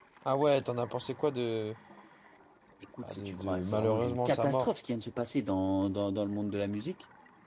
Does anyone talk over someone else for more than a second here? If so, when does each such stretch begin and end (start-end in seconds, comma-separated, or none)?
3.0-4.7